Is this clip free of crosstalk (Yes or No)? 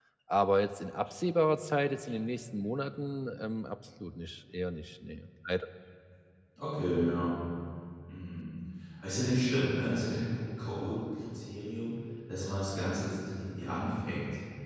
Yes